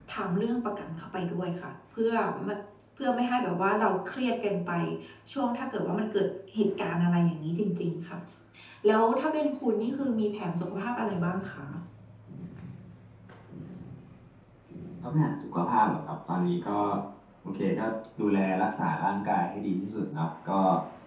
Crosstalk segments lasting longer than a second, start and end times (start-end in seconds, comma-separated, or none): none